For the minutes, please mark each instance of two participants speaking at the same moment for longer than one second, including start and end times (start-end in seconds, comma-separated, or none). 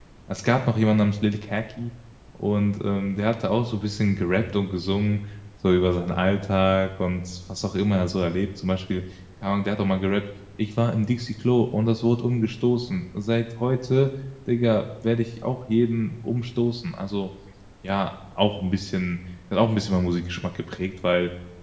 none